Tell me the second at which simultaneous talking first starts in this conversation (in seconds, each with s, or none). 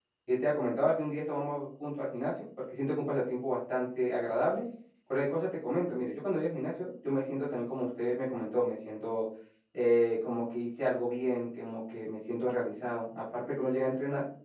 none